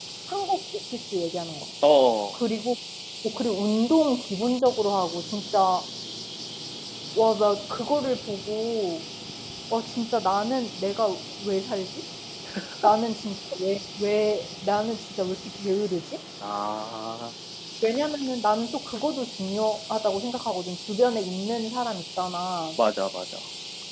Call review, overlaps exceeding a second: none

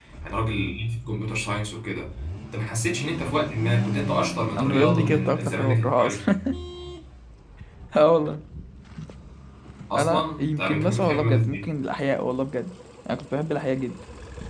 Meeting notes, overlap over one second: present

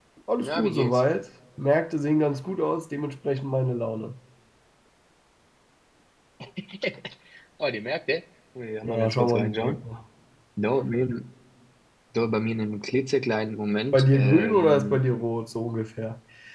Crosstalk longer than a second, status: present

